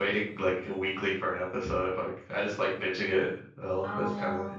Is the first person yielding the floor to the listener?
Yes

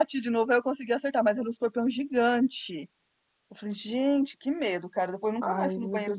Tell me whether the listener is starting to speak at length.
Yes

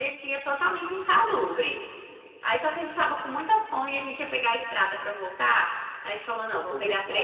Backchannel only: Yes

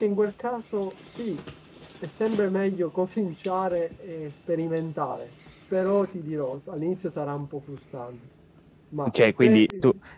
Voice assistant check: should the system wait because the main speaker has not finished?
No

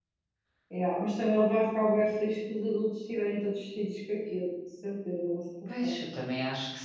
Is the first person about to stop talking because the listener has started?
Yes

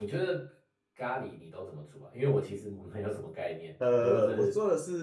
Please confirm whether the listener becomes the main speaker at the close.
Yes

